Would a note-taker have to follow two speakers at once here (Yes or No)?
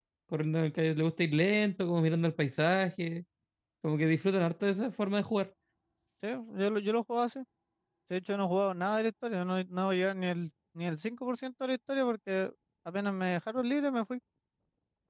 No